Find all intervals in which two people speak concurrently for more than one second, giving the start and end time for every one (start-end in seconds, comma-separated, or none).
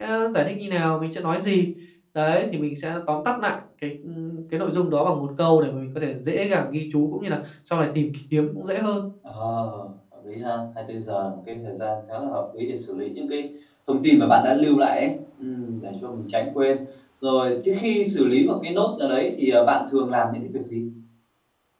none